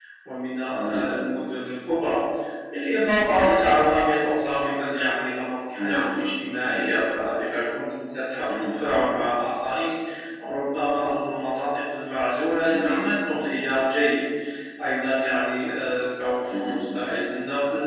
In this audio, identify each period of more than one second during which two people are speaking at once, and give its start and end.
none

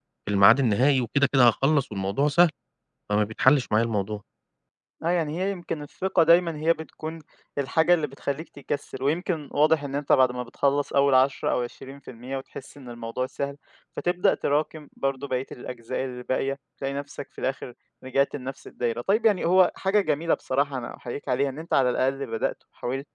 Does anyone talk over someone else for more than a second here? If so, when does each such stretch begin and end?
none

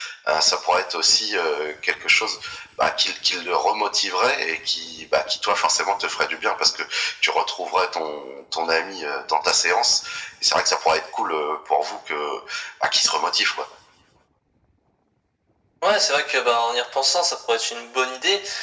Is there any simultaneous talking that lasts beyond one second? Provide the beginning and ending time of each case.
none

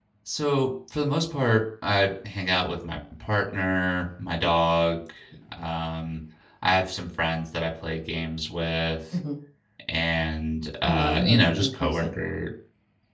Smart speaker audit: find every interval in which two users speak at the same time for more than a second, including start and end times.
10.8-12.1

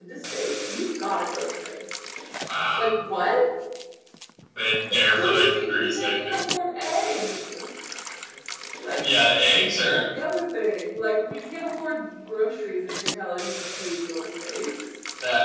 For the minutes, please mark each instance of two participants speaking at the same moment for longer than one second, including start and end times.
5.2-6.4

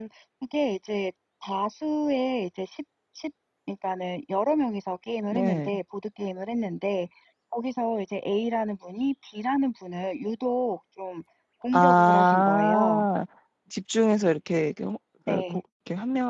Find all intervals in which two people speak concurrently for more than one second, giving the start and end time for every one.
11.7-13.1

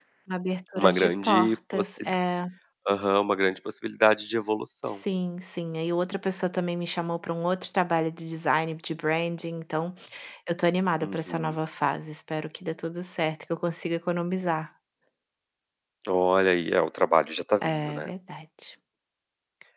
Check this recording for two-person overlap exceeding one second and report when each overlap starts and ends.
0.8-2.1

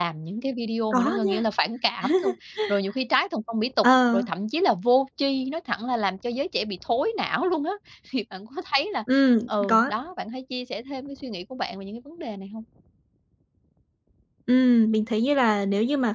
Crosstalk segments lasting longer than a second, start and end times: none

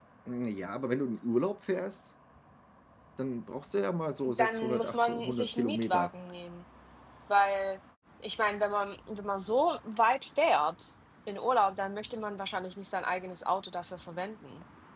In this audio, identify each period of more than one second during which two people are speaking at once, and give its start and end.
4.2-6.1

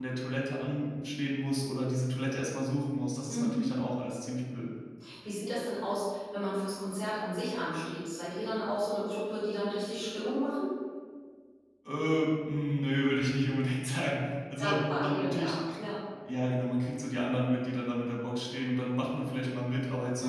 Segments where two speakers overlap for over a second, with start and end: 14.6-15.8

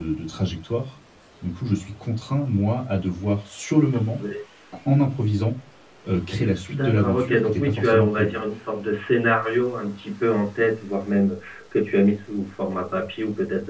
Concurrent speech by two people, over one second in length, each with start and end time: 6.7-8.4

